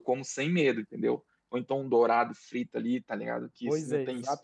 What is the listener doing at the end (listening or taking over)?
taking over